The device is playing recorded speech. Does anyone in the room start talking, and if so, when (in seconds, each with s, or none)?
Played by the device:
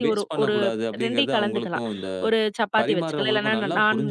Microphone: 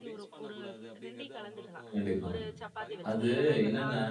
1.9 s